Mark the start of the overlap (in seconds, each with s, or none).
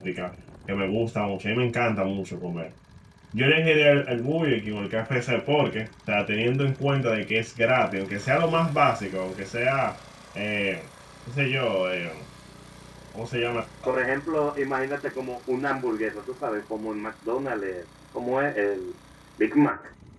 none